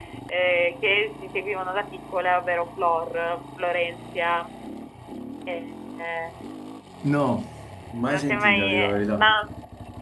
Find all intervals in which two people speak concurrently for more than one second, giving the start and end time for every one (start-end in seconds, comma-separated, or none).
8.1-9.3